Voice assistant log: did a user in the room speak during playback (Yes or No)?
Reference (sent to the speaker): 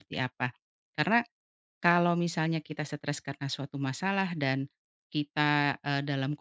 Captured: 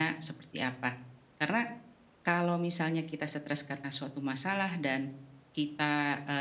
No